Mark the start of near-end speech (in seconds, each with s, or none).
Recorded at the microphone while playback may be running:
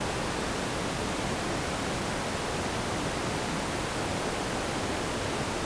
none